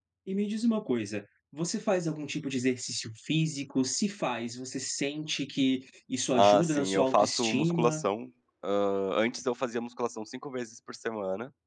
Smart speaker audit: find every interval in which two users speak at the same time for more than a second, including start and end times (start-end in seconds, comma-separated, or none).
6.3-8.0